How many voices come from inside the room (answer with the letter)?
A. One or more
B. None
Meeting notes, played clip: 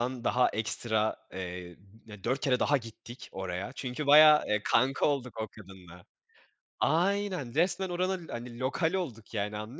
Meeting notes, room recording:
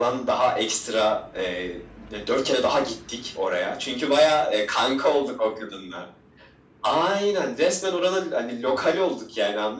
B